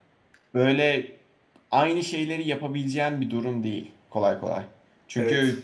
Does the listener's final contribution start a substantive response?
No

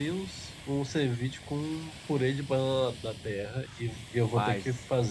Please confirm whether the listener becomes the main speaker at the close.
No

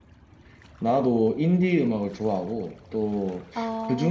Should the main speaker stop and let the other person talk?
No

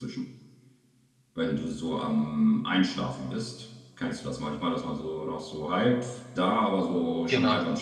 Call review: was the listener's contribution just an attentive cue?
Yes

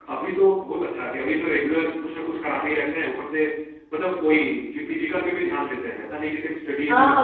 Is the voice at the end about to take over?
Yes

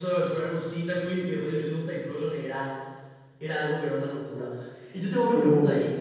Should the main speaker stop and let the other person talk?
No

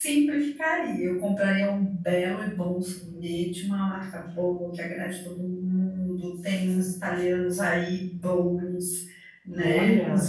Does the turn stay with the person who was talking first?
Yes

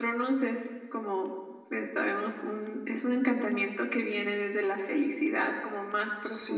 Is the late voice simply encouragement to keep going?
Yes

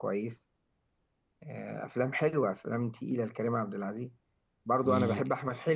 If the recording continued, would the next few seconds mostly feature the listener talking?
No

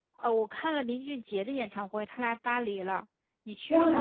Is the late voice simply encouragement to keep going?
No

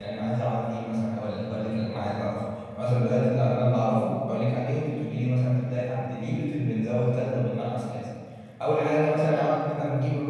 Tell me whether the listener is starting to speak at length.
No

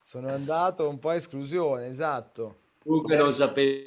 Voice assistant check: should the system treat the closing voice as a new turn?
Yes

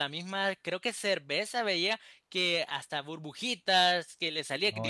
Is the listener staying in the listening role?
Yes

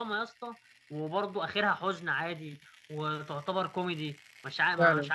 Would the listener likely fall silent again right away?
No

